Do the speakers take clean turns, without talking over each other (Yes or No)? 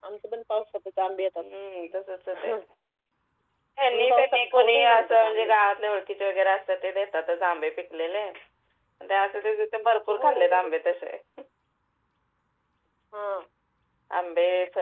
No